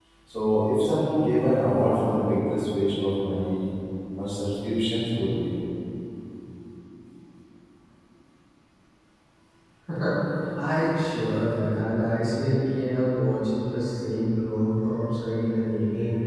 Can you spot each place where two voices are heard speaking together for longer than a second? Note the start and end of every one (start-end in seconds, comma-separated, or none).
none